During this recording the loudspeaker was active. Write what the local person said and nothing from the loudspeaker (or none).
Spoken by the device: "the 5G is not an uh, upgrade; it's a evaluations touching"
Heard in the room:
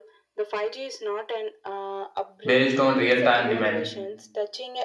based on real time demand.